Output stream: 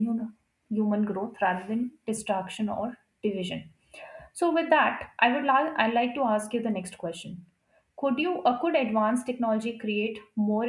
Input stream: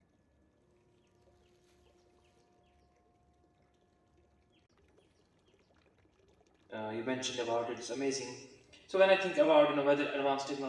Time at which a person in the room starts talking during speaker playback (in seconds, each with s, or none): 6.7 s